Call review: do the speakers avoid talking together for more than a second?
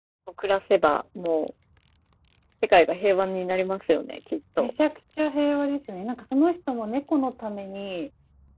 Yes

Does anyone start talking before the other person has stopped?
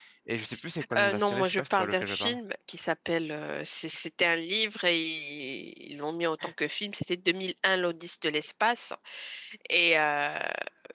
Yes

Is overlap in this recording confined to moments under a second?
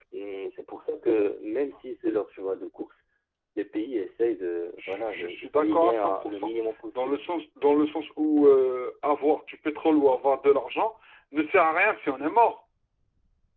No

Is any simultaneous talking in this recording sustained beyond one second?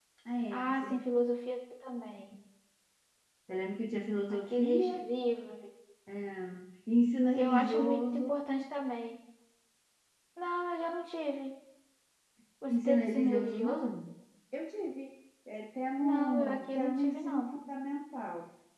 Yes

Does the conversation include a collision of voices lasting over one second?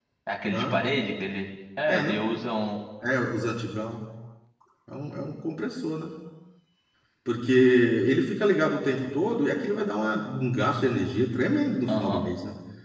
No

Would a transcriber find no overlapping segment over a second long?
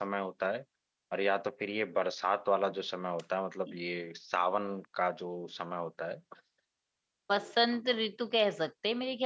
Yes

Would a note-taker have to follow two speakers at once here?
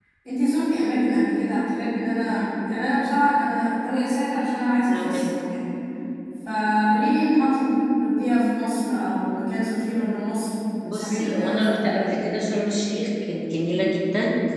Yes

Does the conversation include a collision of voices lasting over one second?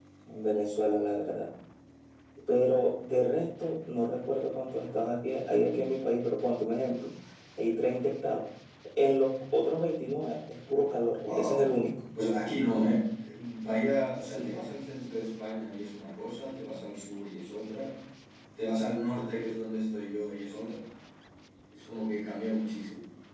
No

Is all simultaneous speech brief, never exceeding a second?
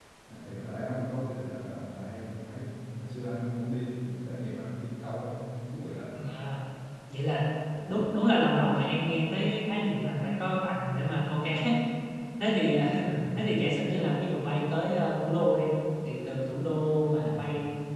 Yes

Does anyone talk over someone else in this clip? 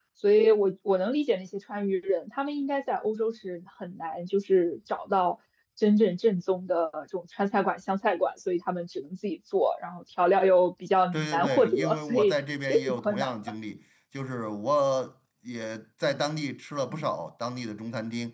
Yes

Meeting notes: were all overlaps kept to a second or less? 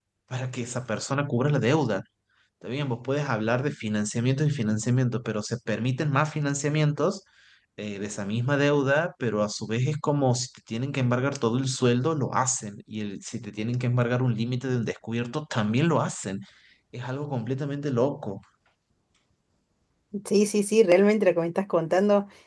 Yes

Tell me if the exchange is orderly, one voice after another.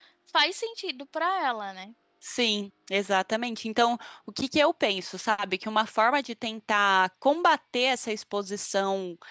Yes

